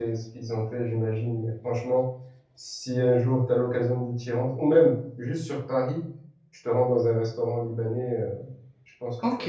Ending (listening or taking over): taking over